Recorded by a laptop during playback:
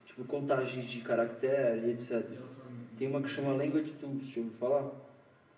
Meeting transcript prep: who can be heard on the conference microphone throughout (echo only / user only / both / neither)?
both